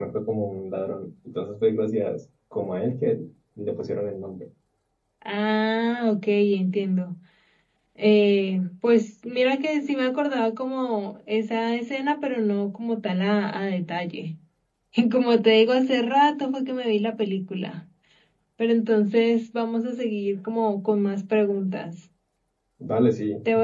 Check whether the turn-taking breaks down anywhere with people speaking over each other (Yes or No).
No